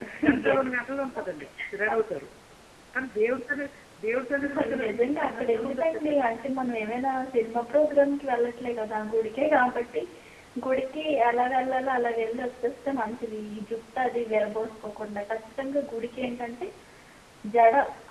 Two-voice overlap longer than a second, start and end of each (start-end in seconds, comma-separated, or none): 4.4-6.4